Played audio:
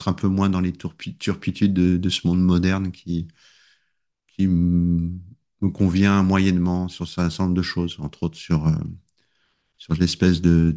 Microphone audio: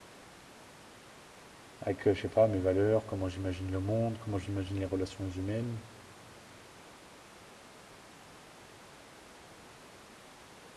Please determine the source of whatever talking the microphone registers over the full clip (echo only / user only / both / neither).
user only